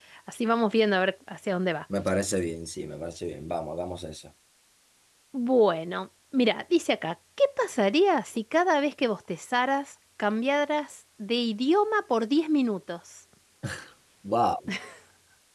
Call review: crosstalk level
none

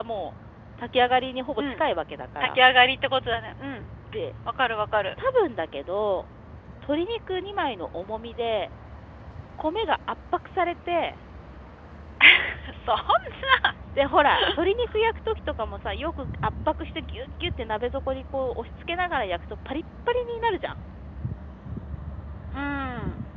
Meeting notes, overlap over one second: none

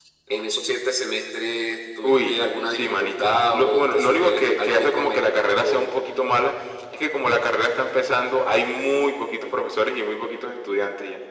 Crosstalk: present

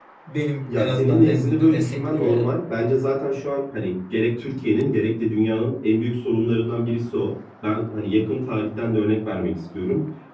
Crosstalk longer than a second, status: present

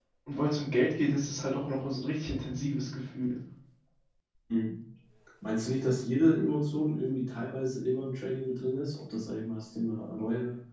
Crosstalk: none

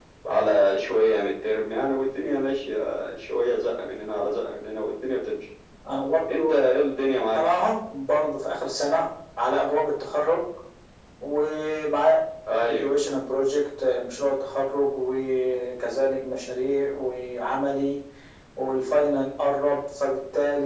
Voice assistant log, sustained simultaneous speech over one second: none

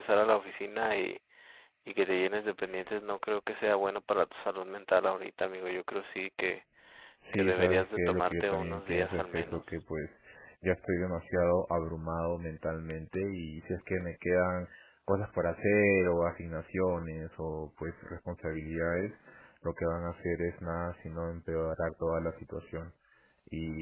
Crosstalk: present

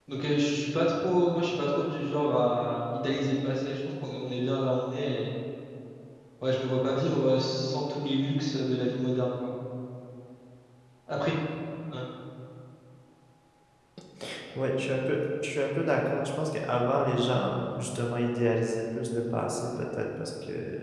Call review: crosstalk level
none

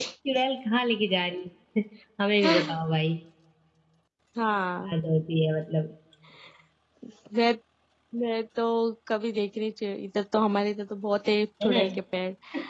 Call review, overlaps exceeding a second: none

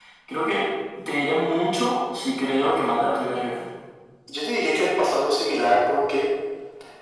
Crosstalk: none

